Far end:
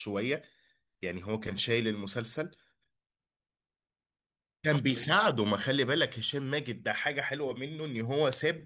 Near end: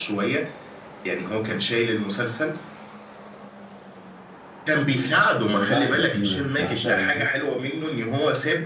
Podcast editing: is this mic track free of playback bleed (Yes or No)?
No